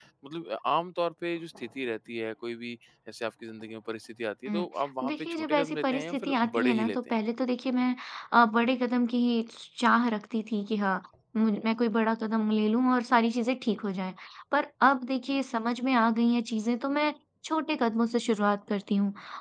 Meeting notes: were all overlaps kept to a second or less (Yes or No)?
No